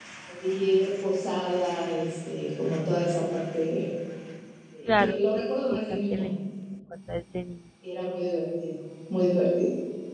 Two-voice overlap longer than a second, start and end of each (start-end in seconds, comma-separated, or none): 4.9-6.3